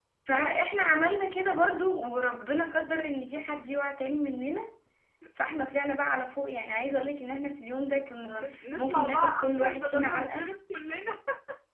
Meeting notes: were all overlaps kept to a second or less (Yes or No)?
No